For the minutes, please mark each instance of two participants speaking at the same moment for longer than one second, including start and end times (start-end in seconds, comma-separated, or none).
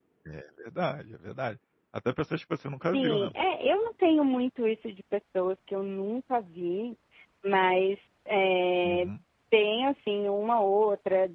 none